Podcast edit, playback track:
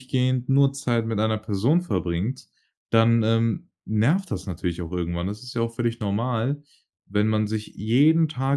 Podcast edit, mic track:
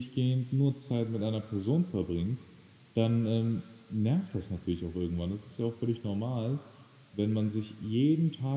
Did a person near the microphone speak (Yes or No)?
No